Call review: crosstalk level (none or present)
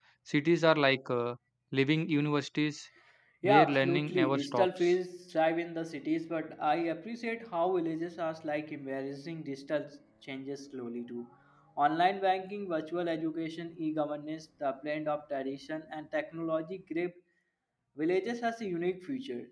present